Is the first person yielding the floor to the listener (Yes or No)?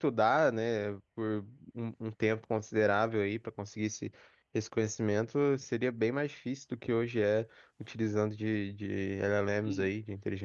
Yes